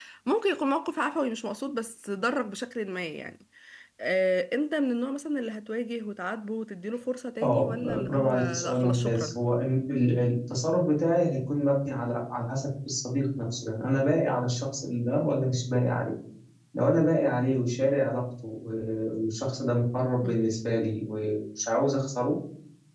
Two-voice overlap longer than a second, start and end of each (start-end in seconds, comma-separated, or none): 7.4-9.4